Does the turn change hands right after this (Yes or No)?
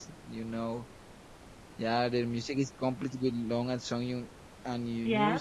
No